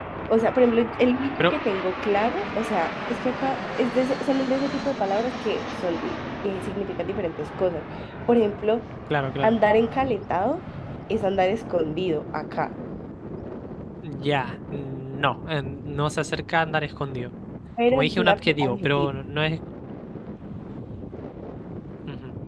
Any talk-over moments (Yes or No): Yes